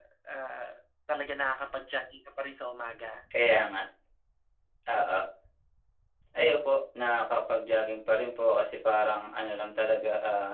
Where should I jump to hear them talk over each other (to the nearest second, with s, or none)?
none